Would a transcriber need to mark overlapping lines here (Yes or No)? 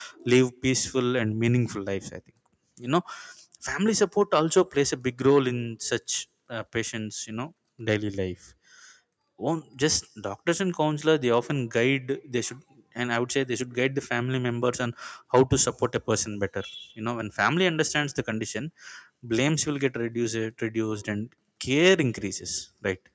No